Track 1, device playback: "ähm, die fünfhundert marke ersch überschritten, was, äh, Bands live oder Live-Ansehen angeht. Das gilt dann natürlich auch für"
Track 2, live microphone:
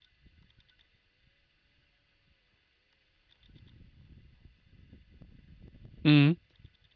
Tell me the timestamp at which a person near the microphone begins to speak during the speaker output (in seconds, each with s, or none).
6.0 s